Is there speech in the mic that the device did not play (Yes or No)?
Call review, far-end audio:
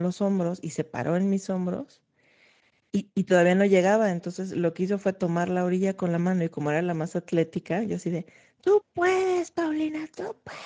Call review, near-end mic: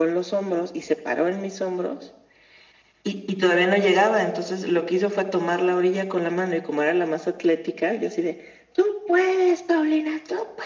No